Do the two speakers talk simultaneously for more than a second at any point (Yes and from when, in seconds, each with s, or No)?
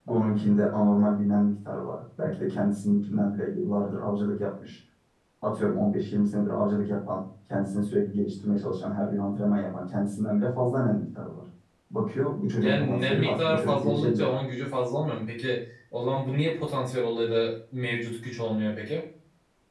Yes, from 12.6 s